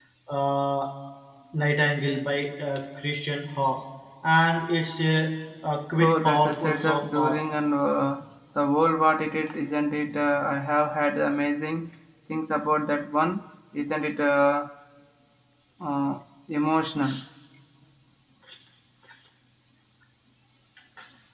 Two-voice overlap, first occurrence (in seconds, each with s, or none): 6.0 s